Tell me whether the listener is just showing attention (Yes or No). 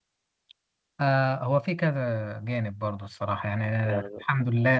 Yes